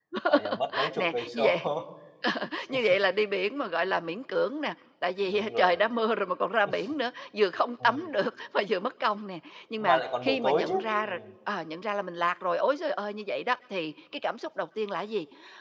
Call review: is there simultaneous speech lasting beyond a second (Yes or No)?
Yes